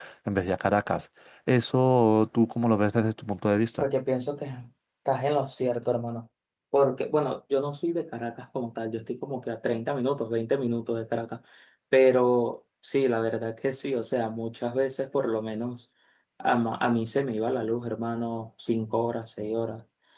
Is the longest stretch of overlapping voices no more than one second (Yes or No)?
Yes